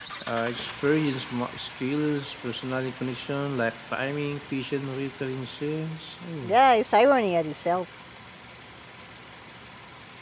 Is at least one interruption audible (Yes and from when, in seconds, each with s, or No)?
No